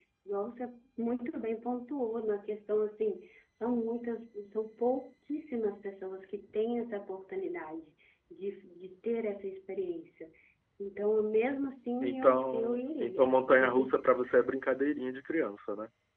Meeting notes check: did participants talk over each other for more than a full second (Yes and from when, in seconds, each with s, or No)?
Yes, from 12.0 s